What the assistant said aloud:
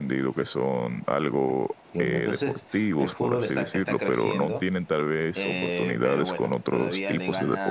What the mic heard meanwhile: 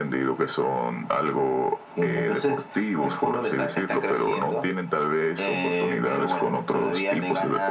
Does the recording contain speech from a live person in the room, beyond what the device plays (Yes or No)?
No